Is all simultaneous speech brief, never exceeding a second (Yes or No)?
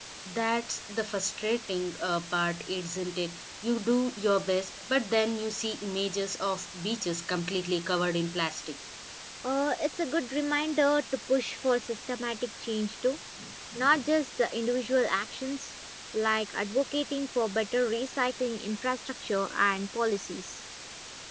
Yes